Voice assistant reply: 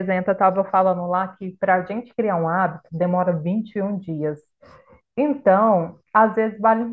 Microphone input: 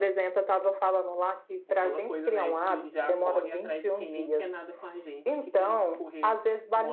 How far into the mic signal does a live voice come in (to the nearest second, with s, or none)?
2 s